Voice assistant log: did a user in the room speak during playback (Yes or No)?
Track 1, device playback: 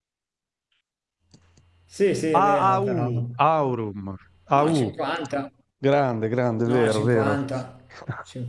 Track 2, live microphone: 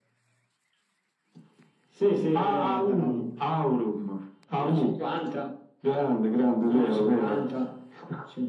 No